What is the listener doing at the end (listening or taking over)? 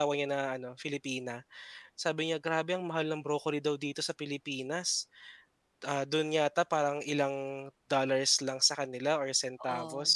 listening